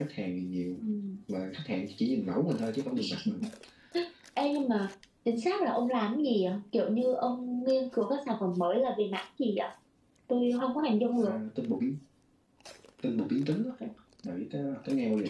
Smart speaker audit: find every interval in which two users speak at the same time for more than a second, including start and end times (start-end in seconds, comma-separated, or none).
none